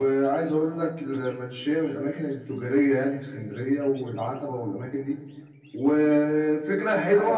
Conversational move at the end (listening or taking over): listening